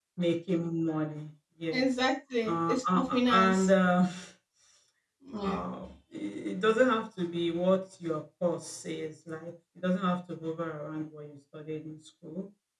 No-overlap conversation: No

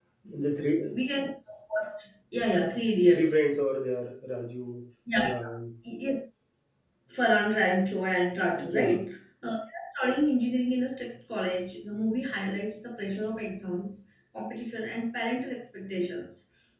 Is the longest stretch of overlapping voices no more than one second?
Yes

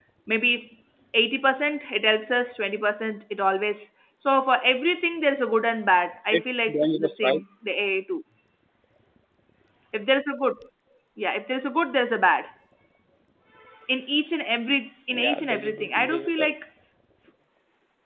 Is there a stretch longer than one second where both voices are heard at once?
Yes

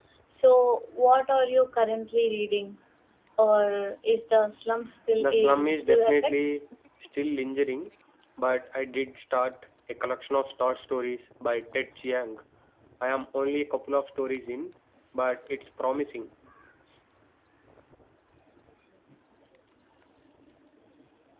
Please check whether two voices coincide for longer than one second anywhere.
Yes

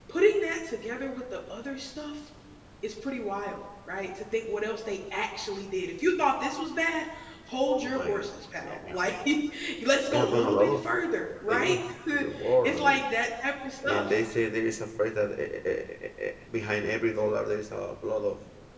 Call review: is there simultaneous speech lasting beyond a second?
Yes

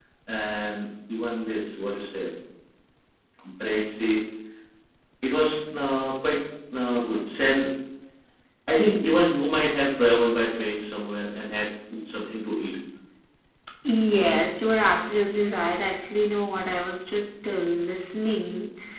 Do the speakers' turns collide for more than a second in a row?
No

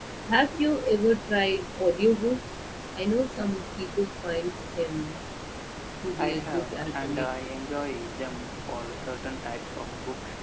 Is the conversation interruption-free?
No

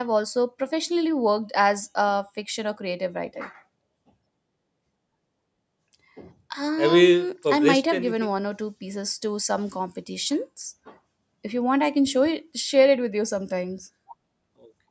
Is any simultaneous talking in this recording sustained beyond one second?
Yes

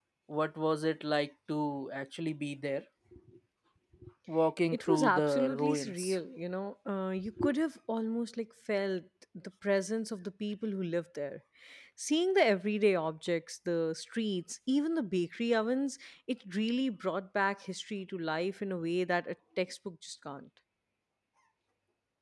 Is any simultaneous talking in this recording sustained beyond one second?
Yes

